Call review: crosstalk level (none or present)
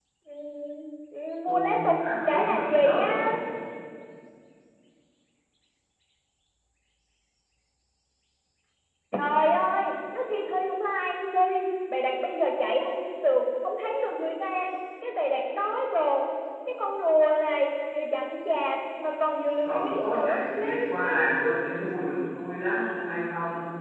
present